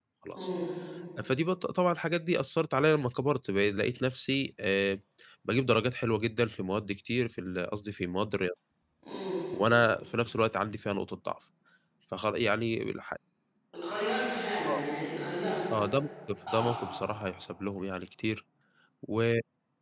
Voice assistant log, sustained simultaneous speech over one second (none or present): none